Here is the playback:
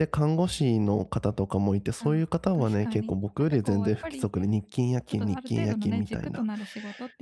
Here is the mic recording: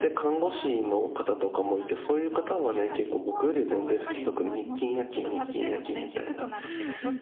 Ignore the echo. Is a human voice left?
Yes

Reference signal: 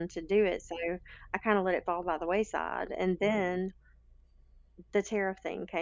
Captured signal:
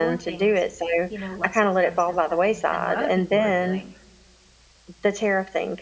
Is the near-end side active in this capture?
Yes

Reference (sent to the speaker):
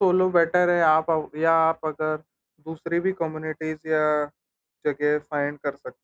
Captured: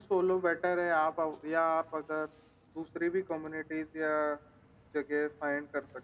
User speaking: No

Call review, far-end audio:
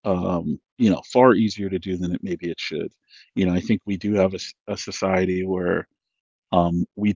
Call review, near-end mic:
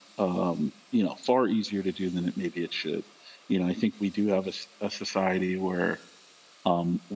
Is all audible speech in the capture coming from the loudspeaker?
Yes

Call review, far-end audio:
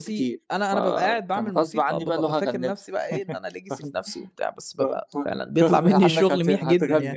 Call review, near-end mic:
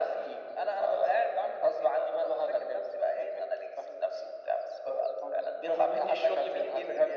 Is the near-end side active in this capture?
No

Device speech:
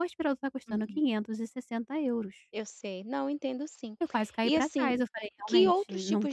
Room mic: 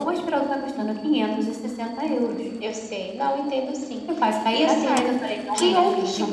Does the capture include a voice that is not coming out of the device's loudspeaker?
No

